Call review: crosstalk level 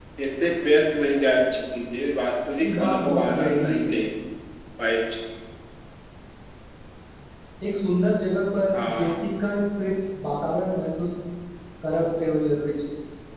present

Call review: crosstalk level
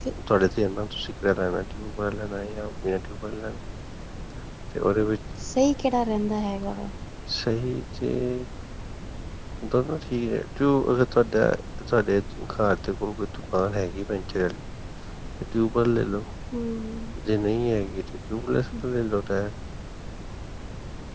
none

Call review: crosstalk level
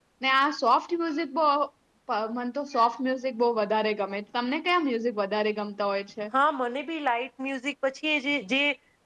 none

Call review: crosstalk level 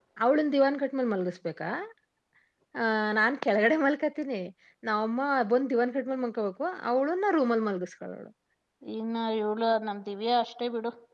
none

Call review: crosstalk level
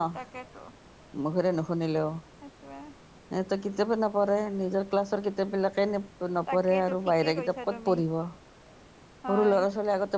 present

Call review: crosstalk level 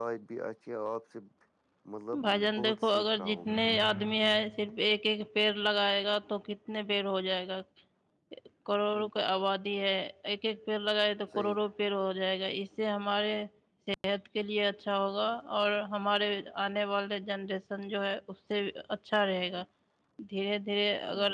present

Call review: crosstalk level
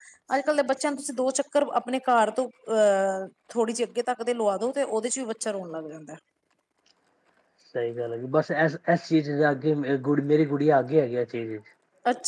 none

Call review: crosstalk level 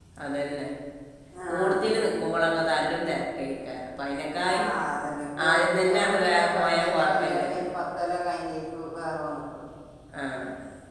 present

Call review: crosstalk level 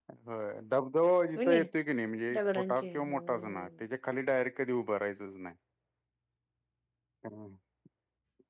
present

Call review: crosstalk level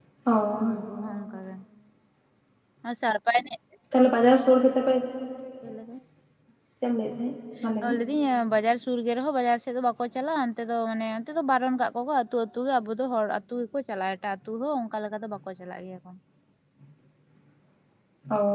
none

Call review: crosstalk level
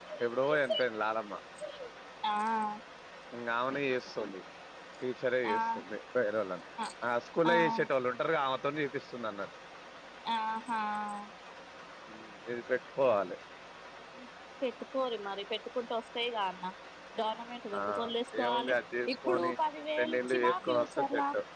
present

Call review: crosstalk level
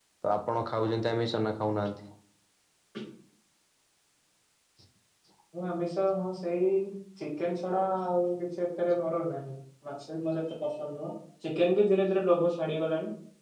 none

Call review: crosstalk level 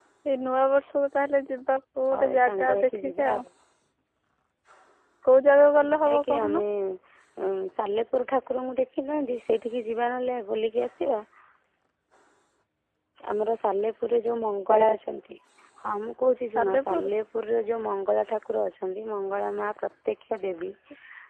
present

